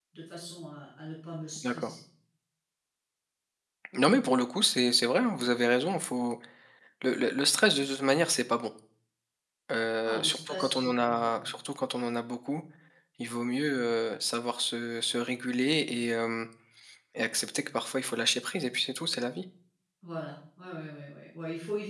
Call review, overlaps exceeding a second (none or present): present